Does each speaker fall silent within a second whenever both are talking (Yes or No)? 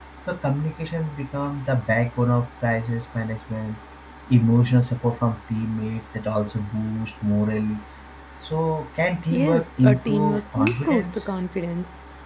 No